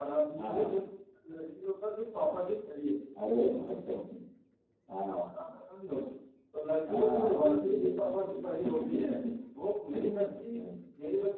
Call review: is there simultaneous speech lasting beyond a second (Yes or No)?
Yes